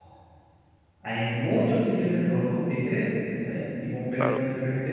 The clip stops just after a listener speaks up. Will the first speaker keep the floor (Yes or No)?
Yes